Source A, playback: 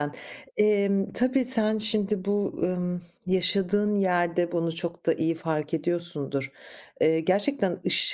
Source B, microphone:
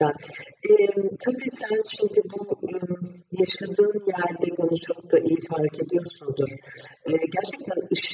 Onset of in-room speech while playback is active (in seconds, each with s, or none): none